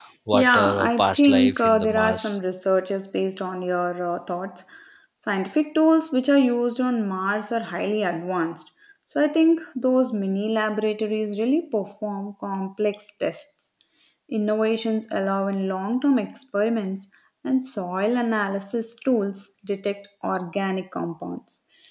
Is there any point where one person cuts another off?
Yes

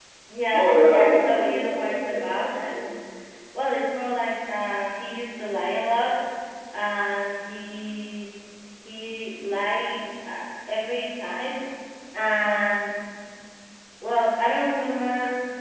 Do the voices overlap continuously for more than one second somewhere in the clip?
Yes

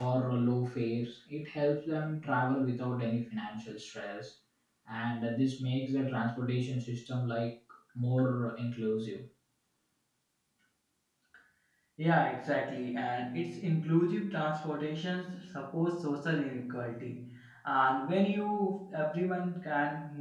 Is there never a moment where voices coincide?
Yes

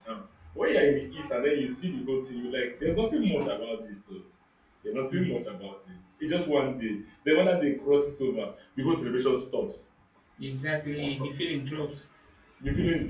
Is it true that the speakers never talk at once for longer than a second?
Yes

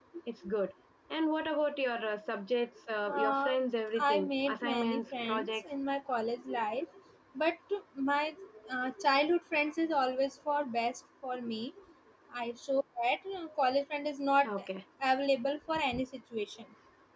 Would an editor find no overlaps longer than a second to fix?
No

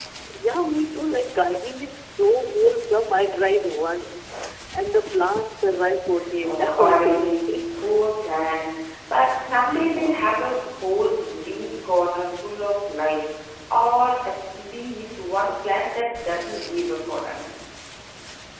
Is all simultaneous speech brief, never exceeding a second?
No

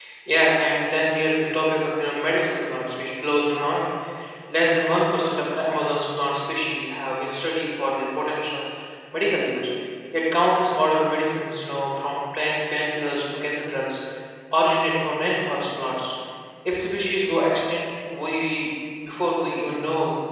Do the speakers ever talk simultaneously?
No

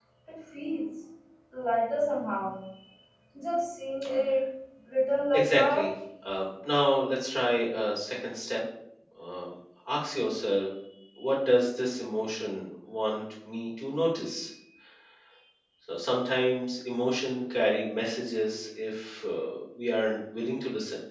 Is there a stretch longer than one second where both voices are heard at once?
No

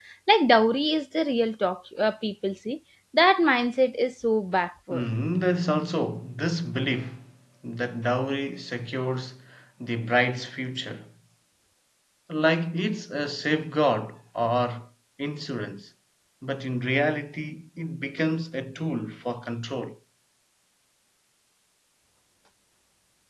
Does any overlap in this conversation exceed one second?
No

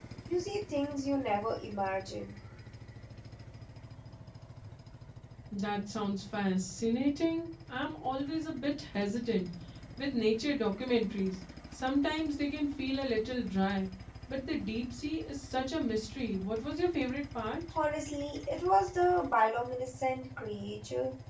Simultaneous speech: No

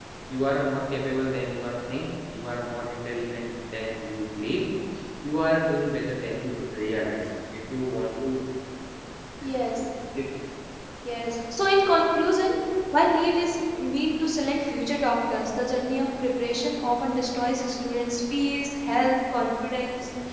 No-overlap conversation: Yes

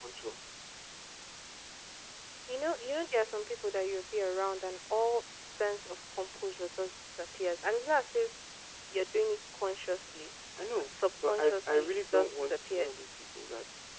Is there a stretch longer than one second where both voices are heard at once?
Yes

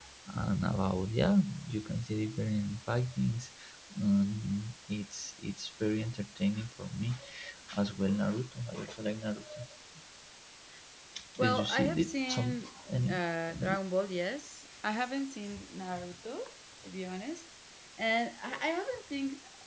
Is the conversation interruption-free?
No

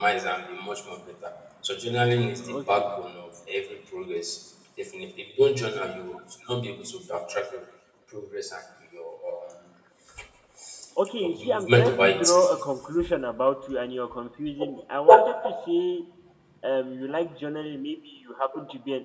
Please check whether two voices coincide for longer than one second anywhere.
Yes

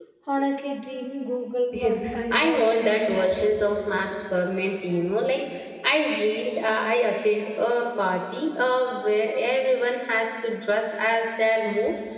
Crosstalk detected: Yes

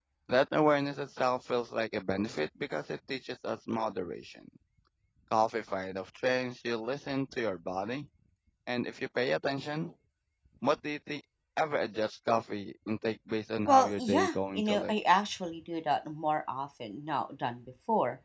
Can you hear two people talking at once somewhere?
Yes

